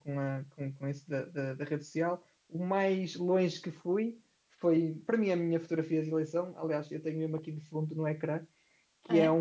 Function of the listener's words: listening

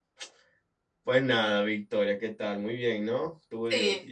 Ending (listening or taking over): taking over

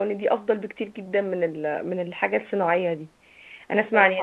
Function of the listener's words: listening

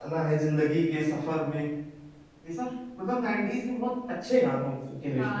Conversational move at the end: taking over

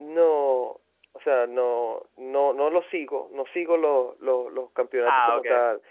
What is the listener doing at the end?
listening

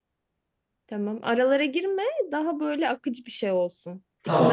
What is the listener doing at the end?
taking over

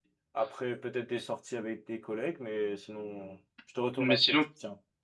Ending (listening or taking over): taking over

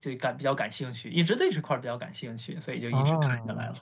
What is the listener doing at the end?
taking over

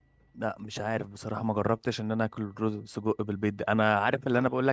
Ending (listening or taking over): listening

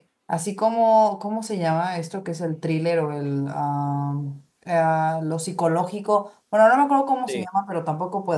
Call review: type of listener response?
listening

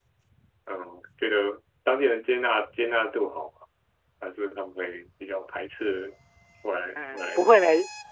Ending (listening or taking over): taking over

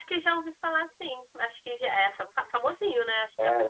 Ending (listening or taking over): taking over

